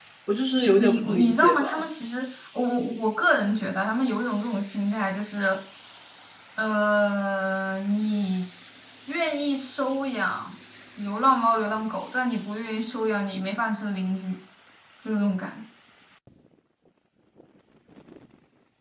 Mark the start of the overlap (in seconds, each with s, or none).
0.6 s